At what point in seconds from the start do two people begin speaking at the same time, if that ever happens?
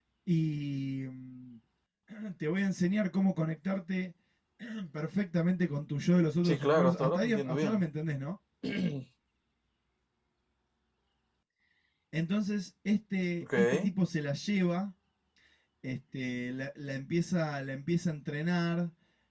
6.4 s

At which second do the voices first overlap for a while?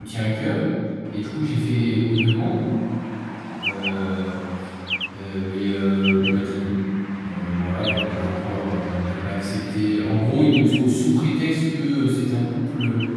none

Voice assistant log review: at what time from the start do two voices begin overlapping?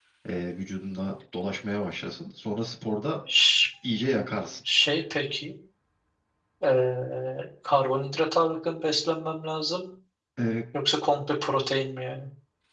none

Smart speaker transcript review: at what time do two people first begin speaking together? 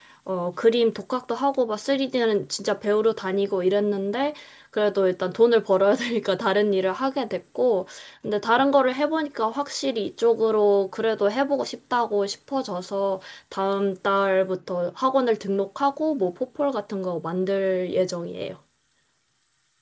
none

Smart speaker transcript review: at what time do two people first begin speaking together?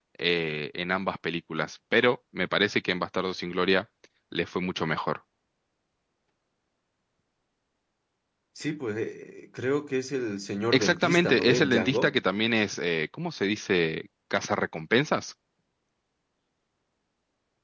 10.7 s

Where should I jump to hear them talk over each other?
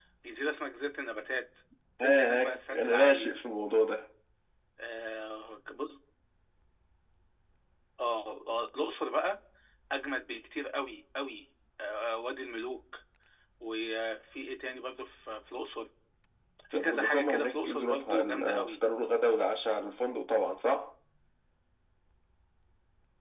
2.0 s

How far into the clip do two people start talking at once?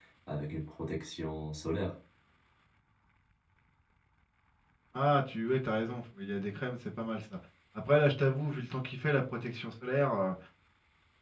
none

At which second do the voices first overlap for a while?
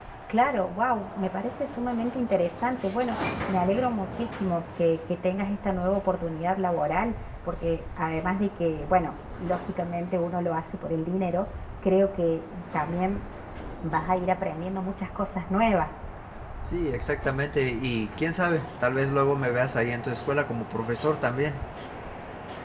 none

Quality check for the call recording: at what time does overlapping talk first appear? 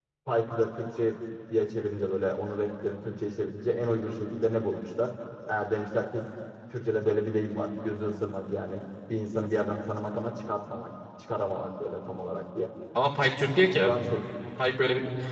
none

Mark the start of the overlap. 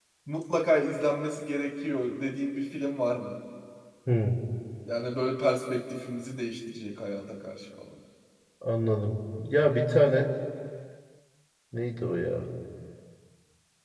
none

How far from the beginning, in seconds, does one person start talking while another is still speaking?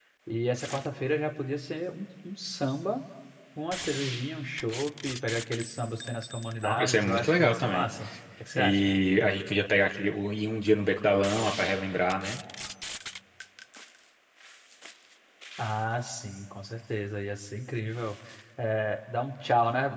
6.6 s

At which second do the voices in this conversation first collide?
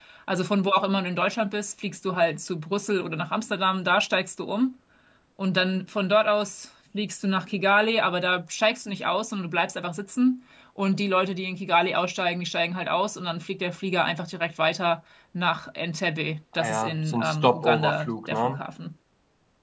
16.6 s

